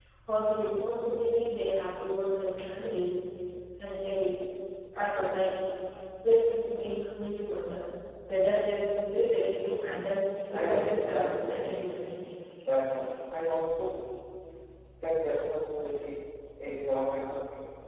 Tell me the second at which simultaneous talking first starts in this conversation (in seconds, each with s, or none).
10.3 s